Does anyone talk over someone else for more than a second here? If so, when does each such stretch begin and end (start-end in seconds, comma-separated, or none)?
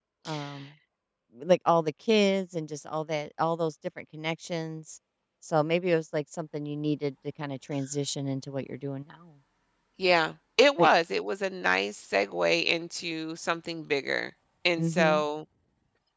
none